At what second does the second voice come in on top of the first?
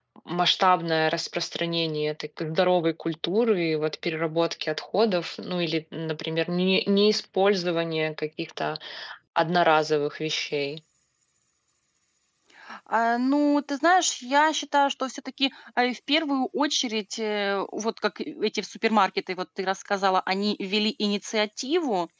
none

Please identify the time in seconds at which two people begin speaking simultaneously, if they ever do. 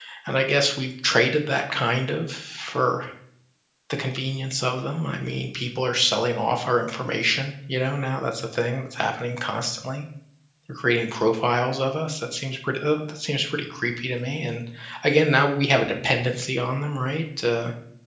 none

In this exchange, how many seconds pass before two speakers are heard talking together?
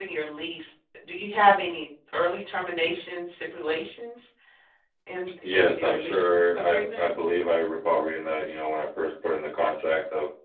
6 s

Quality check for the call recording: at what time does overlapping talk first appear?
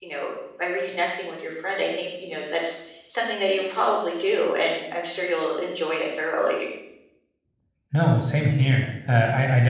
none

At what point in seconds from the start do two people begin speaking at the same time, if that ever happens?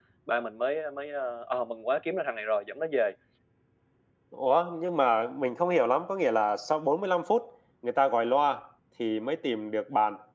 none

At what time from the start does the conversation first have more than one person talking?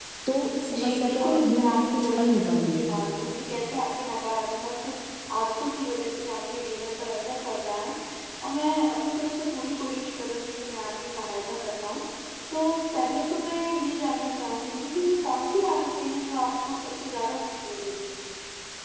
1 s

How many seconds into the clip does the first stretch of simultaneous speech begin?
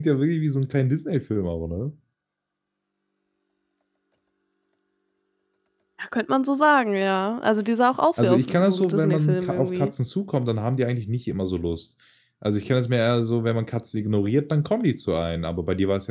8 s

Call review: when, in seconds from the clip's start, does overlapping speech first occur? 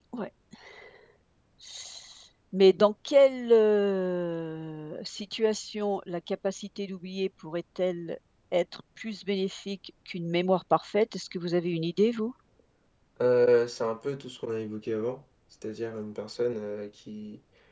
none

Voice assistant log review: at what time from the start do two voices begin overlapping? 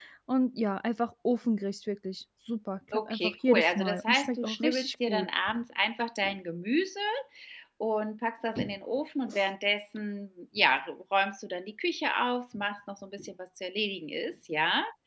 3 s

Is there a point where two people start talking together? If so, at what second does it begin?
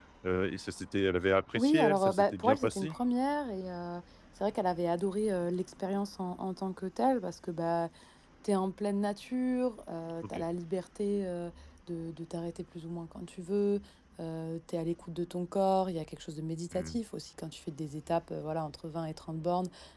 2 s

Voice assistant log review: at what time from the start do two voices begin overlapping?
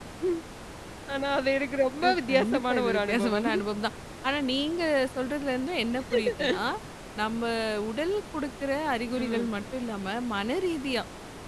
2 s

